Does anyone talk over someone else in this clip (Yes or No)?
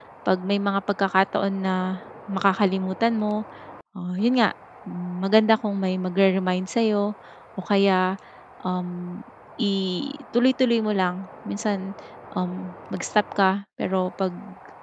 No